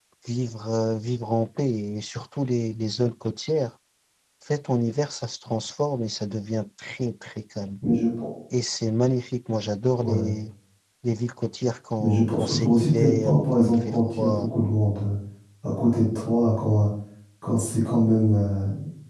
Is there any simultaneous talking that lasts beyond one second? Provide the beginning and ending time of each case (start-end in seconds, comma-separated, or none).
12.0-14.5